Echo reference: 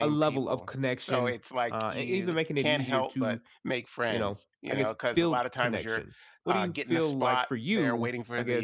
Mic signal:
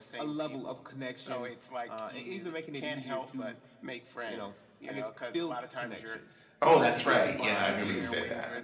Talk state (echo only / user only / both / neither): both